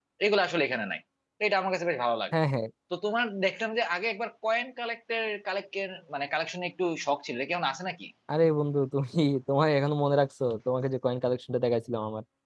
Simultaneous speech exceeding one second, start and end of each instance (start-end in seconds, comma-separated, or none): none